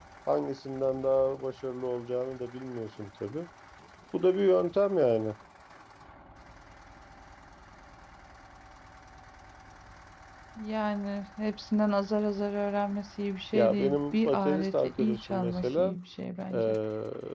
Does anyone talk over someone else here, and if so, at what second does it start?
13.5 s

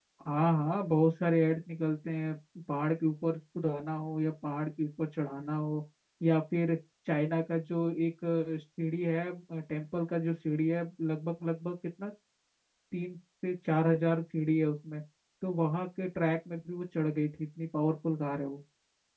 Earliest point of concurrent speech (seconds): none

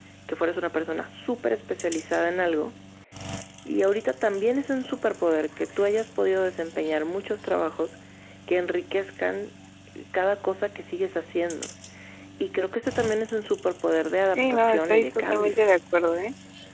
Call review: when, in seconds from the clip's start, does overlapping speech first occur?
14.3 s

